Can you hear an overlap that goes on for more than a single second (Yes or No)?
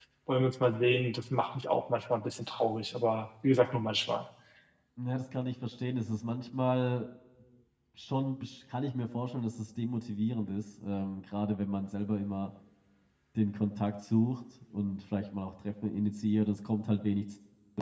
No